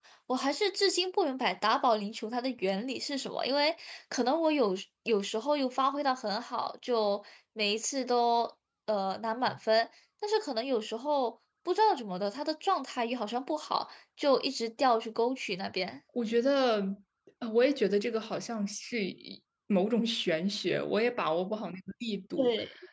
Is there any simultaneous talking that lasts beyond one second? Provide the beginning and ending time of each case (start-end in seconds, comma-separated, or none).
none